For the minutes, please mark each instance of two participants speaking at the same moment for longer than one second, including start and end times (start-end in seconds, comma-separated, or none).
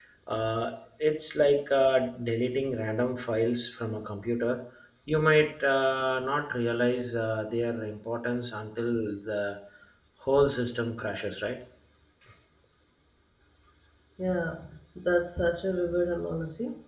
none